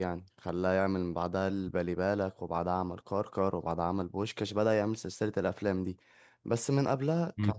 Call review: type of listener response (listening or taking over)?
taking over